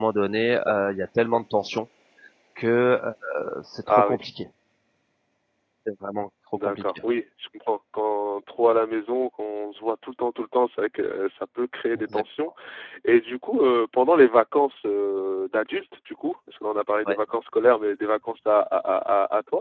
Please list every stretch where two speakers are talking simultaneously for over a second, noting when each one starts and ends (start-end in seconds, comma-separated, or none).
none